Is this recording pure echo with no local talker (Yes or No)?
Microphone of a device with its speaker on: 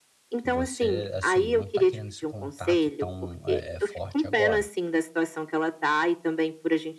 No